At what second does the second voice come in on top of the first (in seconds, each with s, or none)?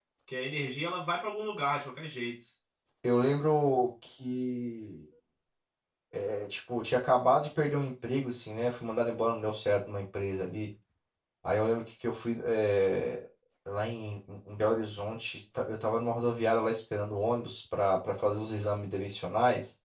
none